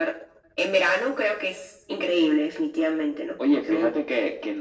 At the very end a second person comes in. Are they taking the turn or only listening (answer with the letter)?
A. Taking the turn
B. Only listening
A